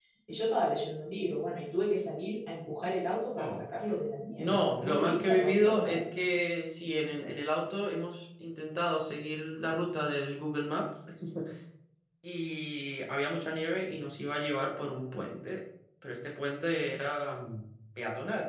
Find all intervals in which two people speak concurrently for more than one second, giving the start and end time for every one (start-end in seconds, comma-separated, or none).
4.4-6.1